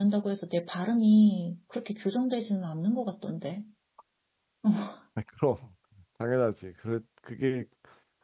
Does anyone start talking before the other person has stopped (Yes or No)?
No